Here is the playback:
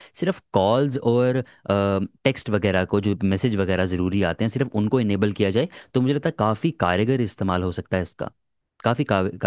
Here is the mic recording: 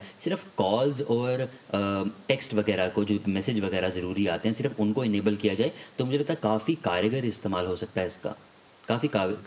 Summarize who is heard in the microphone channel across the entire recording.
echo only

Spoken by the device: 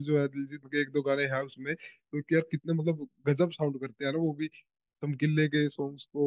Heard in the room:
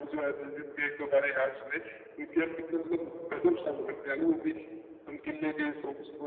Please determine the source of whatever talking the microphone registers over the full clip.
echo only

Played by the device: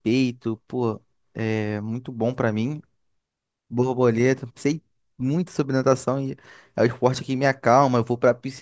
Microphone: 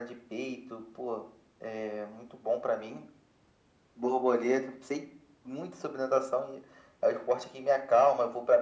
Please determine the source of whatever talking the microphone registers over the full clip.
echo only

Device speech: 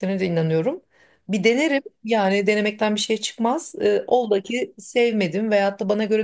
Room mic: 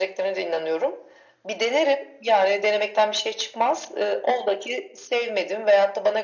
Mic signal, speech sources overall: echo only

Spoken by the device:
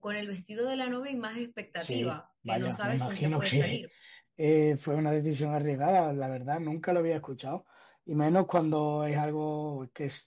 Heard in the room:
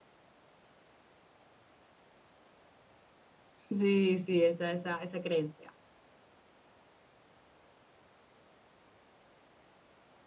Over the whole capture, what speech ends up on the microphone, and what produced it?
user only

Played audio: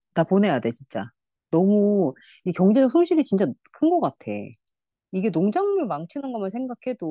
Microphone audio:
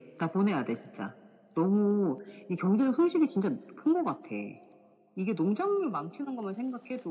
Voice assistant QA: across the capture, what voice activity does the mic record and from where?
echo only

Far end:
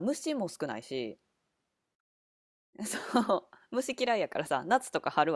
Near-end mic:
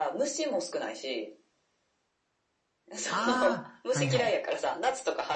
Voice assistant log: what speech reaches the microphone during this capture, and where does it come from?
both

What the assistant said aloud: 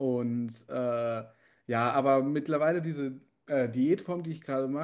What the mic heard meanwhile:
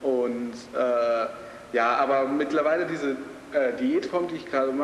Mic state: echo only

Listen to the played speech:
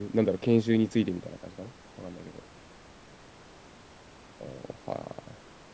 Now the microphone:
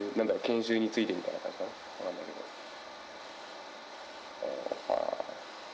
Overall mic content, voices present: echo only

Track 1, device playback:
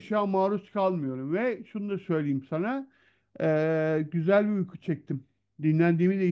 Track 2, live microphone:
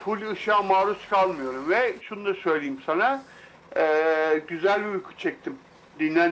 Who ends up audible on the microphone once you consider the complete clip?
echo only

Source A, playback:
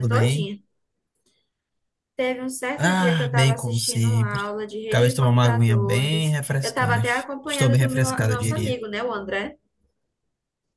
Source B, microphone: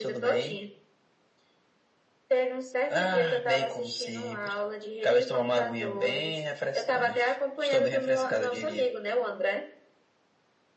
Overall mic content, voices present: echo only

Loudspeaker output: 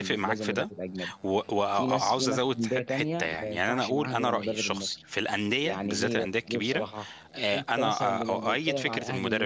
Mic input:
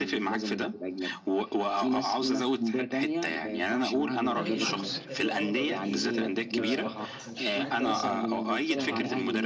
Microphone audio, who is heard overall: both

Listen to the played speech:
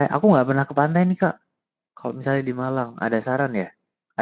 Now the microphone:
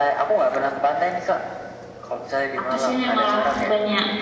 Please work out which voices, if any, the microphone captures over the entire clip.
both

